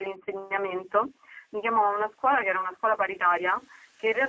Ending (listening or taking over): listening